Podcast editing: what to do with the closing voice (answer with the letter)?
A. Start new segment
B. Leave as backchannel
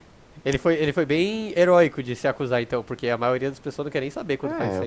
A